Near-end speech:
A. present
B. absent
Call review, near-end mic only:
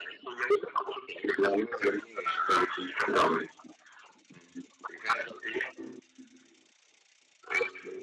B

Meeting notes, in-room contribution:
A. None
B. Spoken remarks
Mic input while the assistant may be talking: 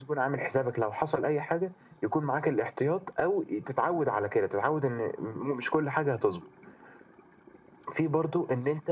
A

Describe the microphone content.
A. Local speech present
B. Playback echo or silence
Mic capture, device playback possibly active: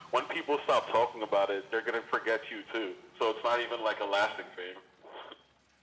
B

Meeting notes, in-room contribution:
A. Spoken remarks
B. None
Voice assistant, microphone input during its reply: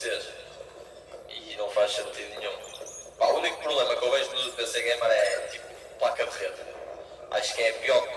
B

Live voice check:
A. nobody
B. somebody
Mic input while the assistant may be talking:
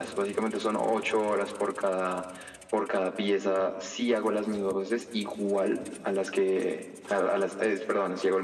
A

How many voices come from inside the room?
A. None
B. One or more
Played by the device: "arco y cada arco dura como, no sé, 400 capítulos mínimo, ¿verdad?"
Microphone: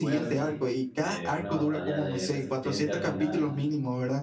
B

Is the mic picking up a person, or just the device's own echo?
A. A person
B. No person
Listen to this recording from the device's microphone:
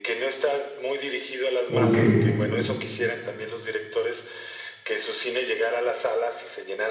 A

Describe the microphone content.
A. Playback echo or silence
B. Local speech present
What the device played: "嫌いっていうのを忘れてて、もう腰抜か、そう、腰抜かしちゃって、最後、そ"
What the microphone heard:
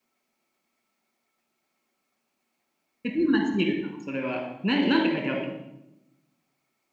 B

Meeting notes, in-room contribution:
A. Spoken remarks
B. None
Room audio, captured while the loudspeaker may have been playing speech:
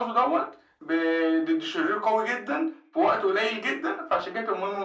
B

